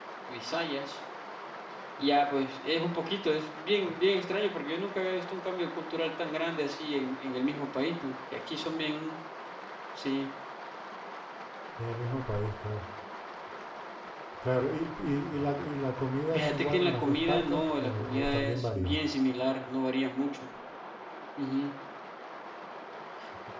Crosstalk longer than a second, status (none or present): present